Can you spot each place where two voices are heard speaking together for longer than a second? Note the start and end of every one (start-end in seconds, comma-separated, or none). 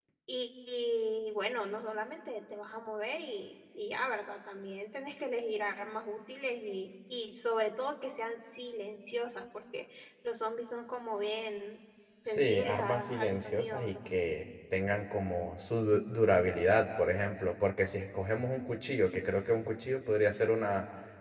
12.2-14.1